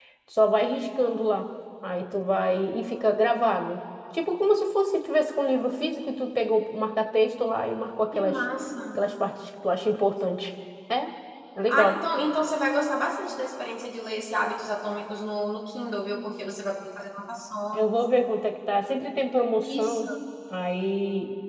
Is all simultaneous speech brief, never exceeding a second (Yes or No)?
Yes